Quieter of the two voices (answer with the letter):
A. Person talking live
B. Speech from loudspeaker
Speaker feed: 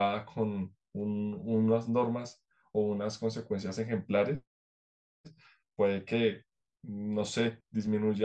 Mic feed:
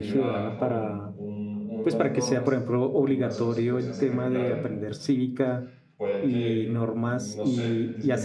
B